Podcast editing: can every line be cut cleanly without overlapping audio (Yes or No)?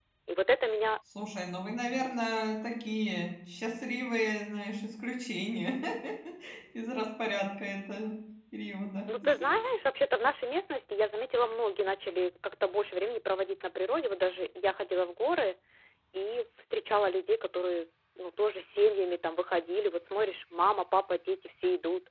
Yes